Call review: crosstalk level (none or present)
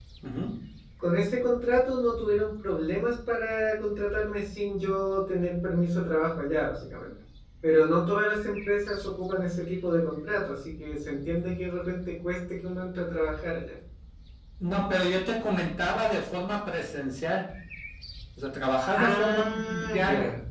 present